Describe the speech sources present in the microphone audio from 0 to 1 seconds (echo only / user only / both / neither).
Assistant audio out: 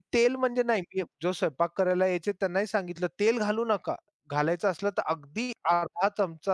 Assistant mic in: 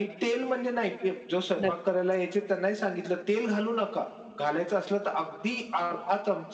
echo only